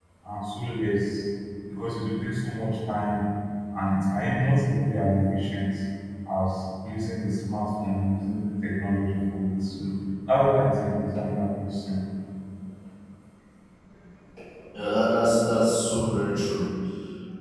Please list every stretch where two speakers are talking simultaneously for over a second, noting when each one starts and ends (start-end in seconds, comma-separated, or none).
none